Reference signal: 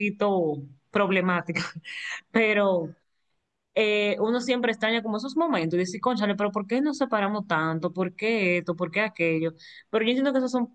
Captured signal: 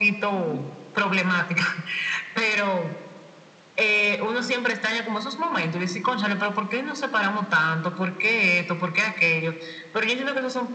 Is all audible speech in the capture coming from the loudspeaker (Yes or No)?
No